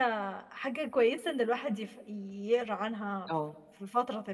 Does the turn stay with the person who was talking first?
Yes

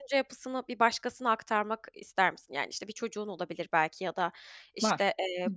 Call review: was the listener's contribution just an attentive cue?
Yes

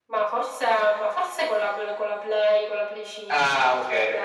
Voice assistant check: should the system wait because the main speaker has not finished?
No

